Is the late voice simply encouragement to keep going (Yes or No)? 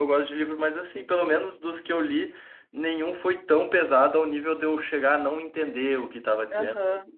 No